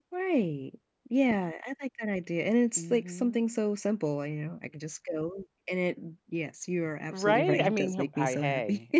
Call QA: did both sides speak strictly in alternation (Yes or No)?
No